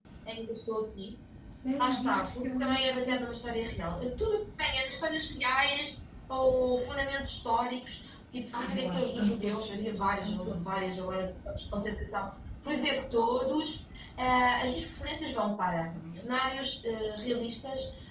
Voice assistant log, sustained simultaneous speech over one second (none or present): present